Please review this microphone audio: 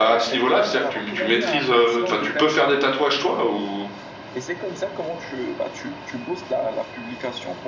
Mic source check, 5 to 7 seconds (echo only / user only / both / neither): echo only